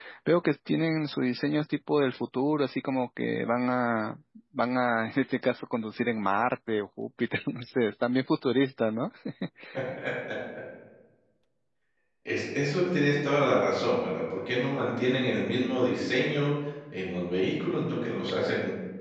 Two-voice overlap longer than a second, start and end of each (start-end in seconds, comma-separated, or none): none